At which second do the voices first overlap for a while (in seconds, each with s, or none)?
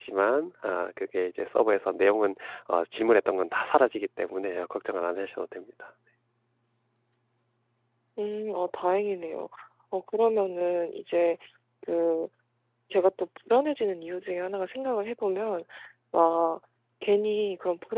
none